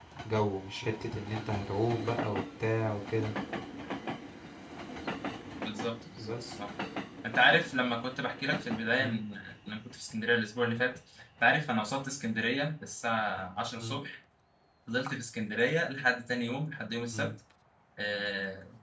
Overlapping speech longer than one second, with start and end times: none

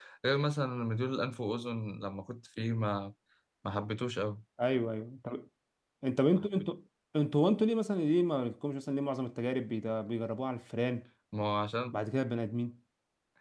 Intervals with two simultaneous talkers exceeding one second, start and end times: none

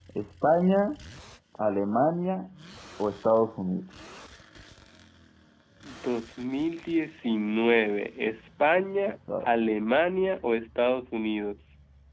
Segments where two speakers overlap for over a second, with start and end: none

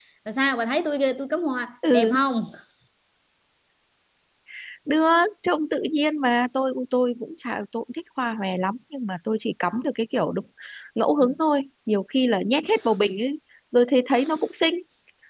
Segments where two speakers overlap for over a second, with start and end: none

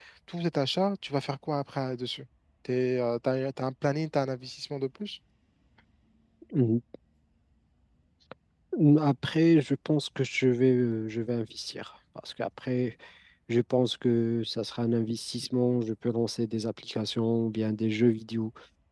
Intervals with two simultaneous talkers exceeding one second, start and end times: none

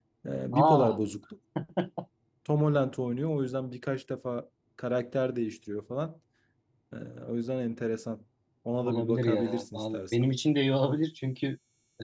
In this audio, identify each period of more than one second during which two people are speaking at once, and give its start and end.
8.8-10.3

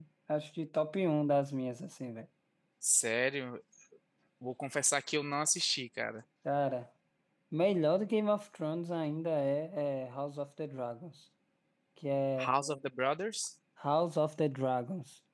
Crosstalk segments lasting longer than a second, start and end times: none

